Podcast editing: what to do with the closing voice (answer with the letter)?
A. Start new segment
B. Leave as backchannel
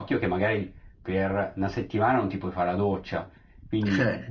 B